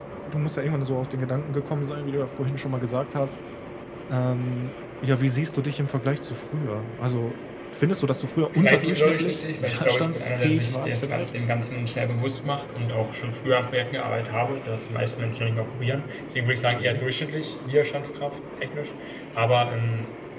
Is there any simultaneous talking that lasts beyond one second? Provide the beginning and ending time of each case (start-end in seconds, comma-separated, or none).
8.5-11.3